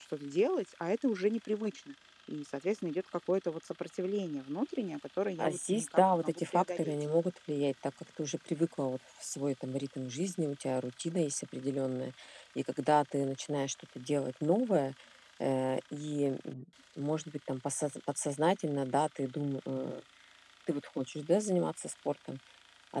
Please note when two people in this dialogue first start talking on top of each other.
5.4 s

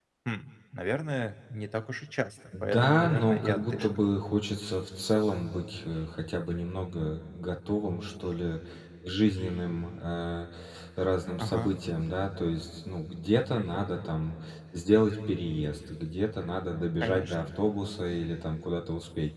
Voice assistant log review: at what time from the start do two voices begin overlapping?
2.6 s

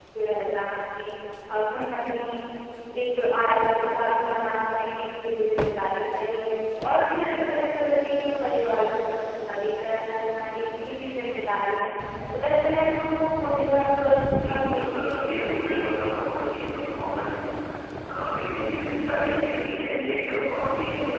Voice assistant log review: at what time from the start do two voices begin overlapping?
14.4 s

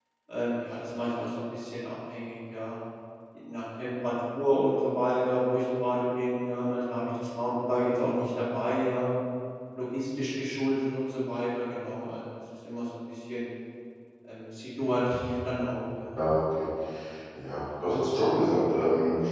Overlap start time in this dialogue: none

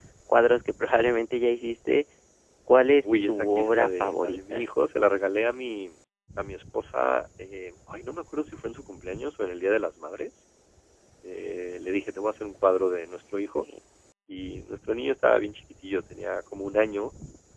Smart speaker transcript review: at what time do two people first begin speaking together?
3.0 s

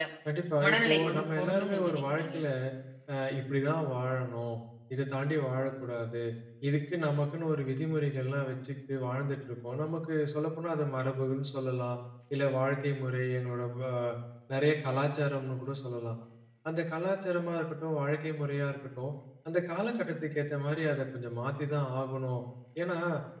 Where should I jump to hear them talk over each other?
0.6 s

